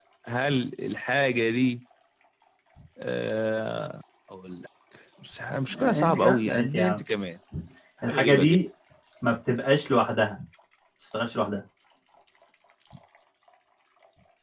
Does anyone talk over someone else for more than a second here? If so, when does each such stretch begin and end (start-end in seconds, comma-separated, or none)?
5.7-7.0